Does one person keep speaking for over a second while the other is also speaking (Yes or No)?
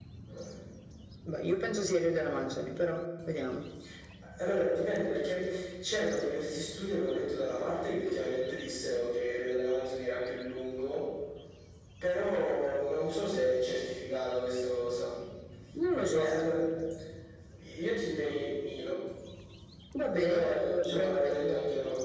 Yes